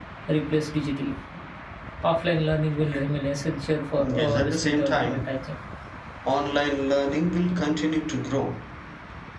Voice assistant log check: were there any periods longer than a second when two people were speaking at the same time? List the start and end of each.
4.0-5.3

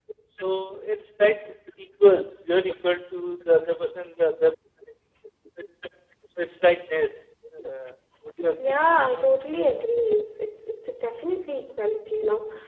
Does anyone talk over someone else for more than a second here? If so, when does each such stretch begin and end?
none

